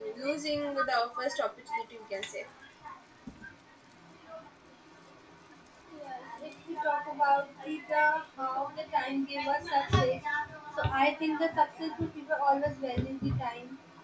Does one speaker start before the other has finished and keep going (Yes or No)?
No